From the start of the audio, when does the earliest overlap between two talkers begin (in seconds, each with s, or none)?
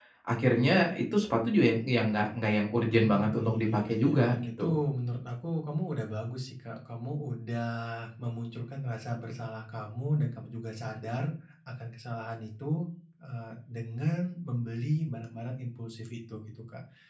2.8 s